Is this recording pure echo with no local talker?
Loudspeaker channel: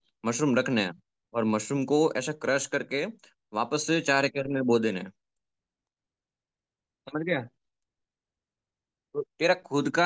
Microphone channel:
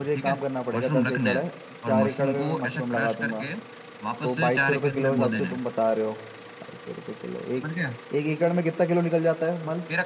No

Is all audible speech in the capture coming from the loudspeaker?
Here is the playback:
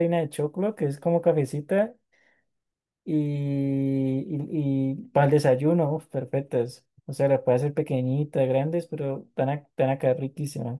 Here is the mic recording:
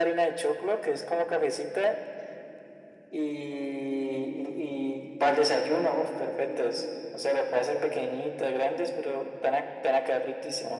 Yes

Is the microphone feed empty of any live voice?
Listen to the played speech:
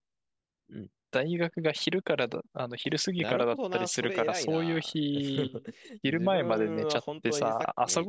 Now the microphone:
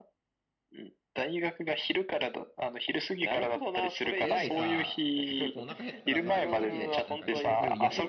No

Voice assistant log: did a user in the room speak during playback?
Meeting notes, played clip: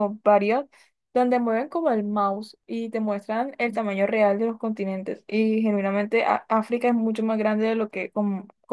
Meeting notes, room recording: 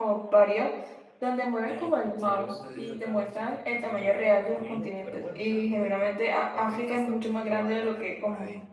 Yes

